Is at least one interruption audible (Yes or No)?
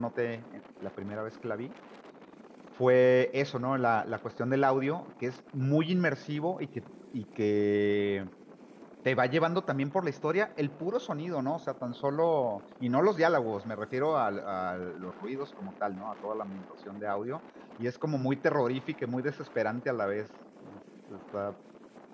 No